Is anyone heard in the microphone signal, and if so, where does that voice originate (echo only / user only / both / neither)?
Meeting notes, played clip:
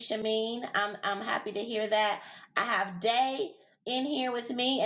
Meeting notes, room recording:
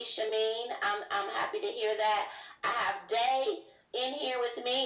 echo only